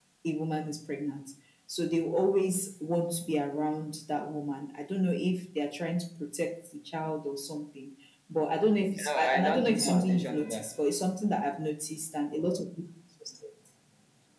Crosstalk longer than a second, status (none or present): present